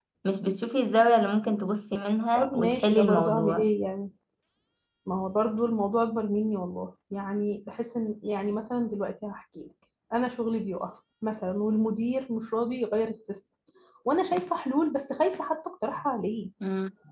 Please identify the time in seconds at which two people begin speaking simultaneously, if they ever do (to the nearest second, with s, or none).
2 s